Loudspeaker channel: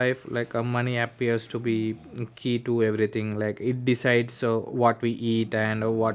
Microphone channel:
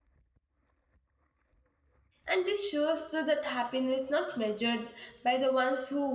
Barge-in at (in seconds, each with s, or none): 2.3 s